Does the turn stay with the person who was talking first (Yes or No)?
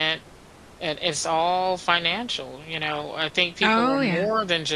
Yes